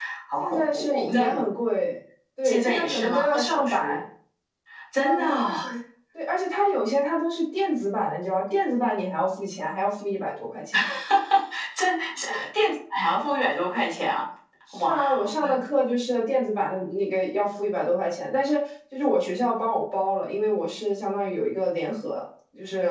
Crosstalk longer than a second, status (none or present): present